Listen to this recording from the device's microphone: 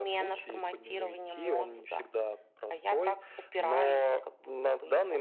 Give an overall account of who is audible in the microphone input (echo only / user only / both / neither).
echo only